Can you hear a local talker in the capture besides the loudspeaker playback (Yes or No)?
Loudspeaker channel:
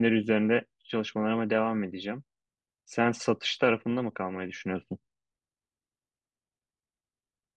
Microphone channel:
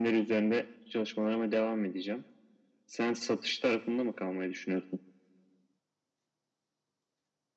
No